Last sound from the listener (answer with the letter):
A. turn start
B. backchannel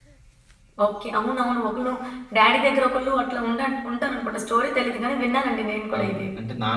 A